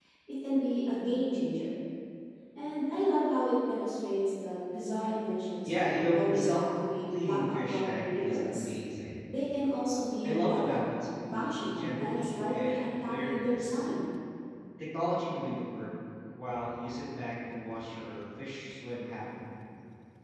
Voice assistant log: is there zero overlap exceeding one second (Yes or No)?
No